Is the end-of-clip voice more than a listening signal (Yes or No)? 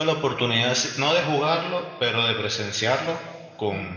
No